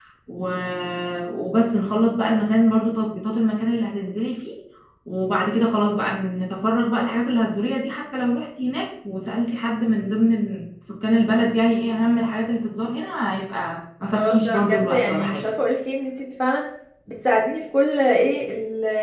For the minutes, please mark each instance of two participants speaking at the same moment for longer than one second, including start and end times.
14.1-15.5

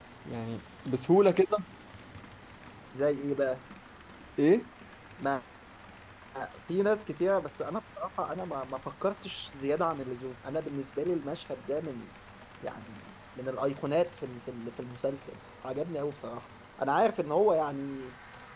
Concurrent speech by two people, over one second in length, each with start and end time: none

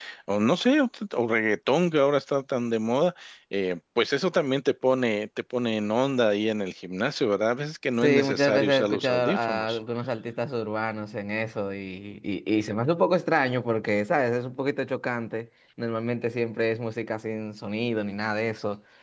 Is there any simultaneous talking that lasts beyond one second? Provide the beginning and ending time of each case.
8.0-9.8

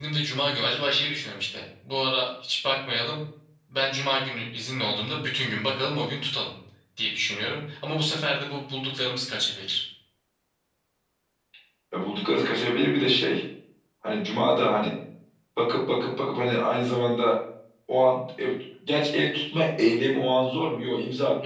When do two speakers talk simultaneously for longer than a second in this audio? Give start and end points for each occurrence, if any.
none

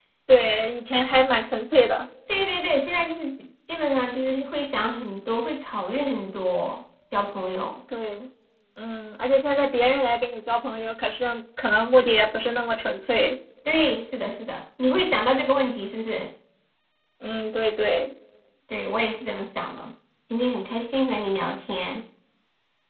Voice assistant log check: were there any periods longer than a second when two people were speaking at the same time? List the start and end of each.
none

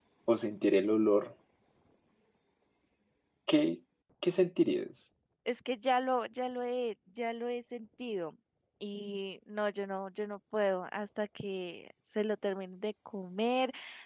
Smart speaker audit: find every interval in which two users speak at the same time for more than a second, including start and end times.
none

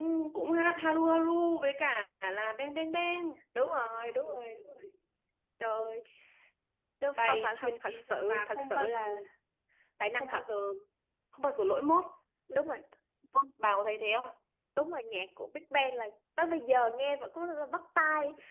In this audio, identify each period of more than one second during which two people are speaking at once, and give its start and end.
7.2-9.0

